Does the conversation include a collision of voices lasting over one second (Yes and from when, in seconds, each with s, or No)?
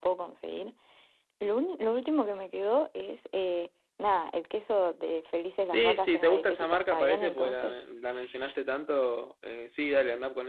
Yes, from 5.7 s